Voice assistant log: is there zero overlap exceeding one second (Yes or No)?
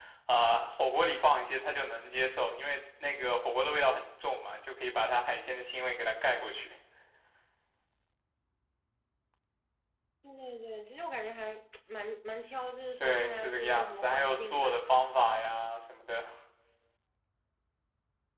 No